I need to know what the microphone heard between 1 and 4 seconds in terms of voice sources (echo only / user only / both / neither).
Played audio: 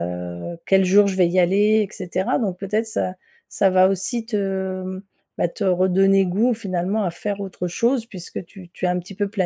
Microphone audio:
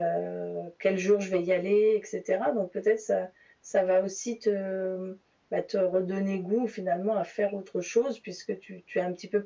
echo only